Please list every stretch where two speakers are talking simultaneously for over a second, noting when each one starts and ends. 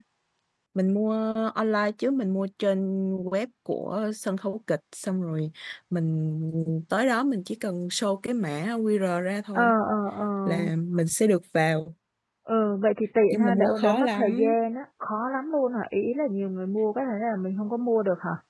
13.3-14.5

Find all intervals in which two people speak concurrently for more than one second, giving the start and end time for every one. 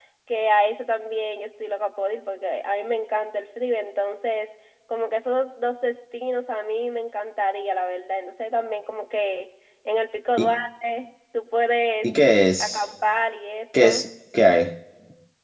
none

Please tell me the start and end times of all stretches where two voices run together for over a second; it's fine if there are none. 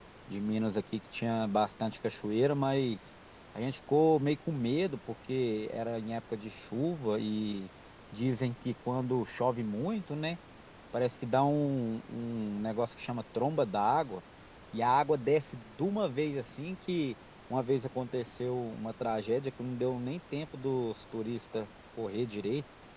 none

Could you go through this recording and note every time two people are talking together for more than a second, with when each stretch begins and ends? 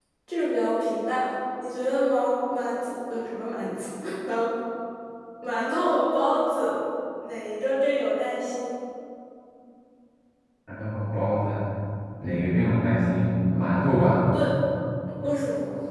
none

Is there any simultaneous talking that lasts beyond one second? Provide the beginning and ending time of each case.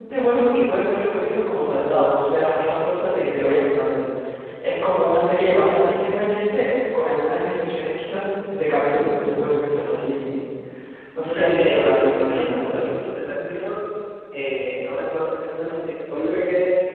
11.3-12.9

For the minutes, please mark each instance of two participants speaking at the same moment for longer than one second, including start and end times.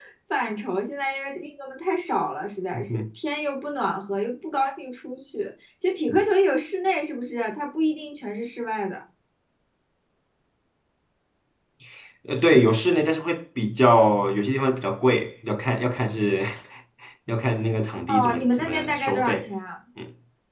18.1-19.5

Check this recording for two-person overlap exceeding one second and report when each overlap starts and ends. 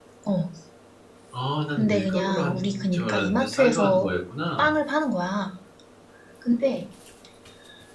1.8-4.1

